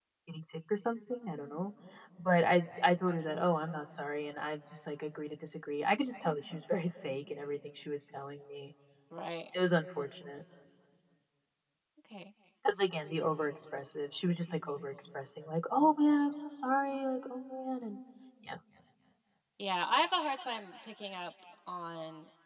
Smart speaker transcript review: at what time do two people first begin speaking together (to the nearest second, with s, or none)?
none